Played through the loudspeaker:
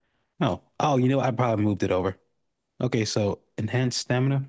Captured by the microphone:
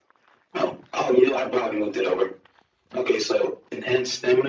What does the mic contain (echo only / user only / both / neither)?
echo only